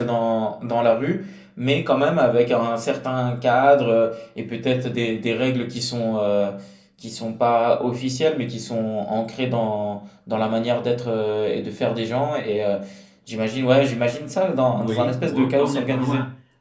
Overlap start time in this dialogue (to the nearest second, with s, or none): 15 s